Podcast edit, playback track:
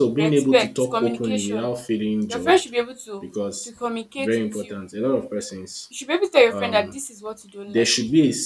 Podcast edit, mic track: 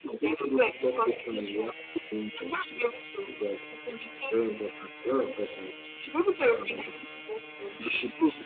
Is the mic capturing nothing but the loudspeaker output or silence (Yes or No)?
Yes